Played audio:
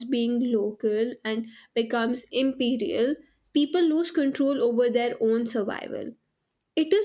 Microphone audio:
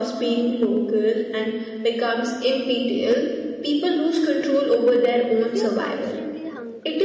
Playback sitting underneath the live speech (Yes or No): No